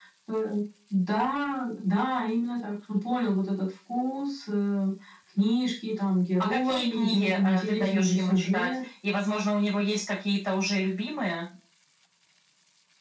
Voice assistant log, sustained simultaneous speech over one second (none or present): present